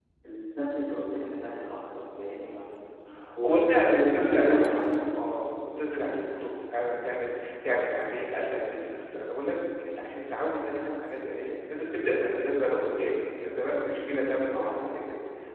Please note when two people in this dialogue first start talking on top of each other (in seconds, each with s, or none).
3.4 s